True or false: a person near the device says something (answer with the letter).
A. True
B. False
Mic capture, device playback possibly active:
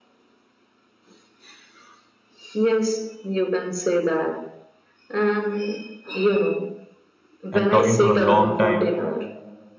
A